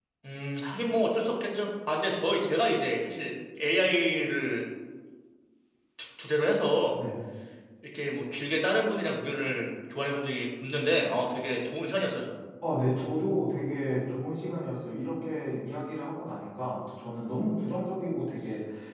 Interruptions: none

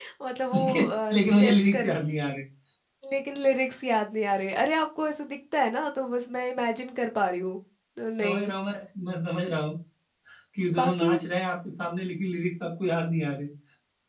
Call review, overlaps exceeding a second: present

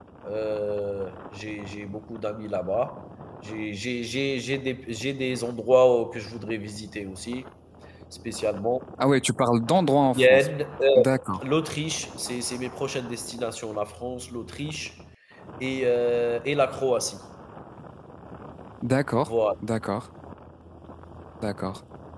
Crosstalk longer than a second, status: none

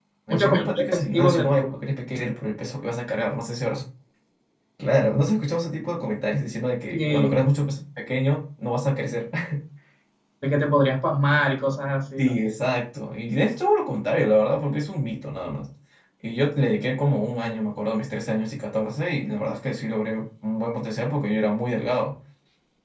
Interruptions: present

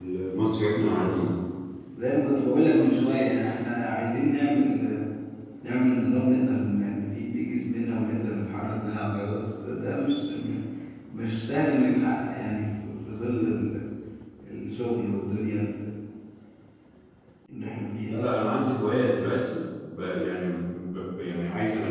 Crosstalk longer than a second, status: none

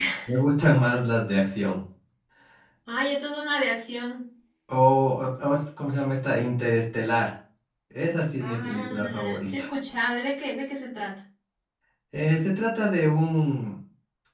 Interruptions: present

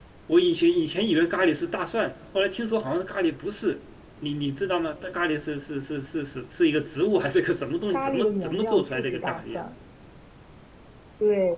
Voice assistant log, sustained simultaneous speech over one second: present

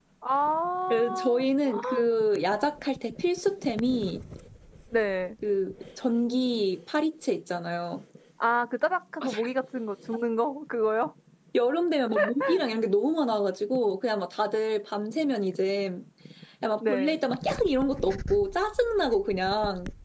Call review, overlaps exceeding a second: none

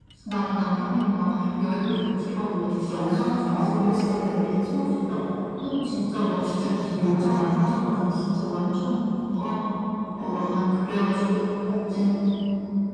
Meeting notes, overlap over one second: present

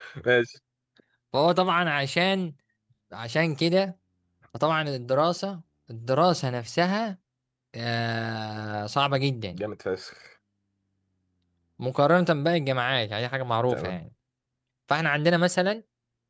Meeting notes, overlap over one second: none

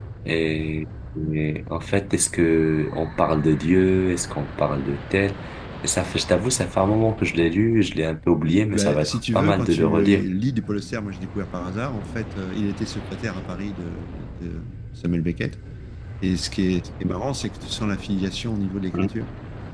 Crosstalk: present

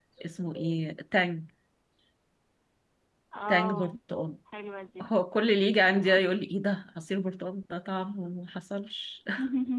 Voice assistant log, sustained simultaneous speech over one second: none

